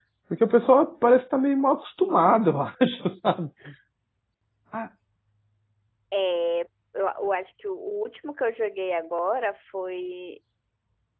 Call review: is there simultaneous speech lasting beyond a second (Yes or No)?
No